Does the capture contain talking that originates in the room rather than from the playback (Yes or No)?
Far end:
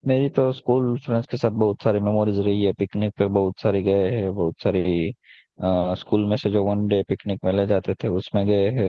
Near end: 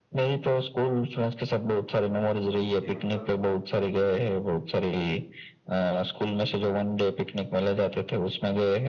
Yes